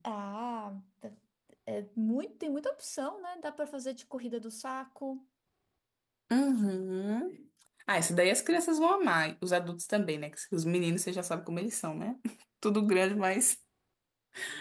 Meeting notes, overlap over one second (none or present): none